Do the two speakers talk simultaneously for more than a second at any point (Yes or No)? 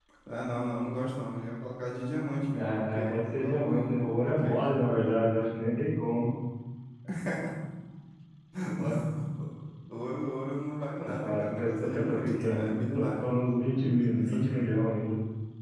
Yes